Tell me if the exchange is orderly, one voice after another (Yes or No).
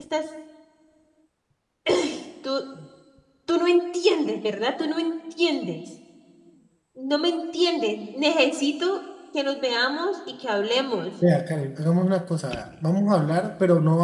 Yes